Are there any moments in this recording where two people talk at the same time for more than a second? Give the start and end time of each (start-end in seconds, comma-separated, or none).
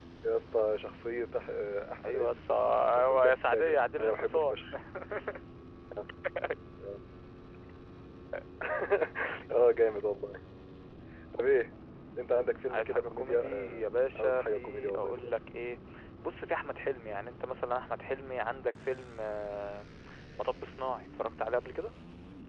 2.0-4.6, 12.7-15.3